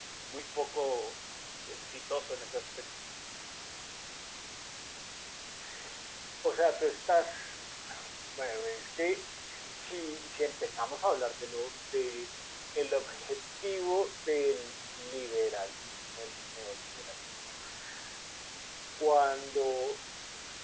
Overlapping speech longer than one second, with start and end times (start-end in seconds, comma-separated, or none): none